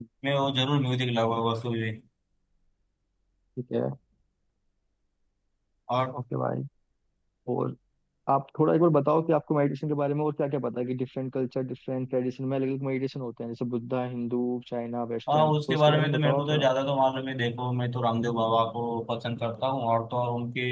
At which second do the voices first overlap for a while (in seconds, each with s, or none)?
15.3 s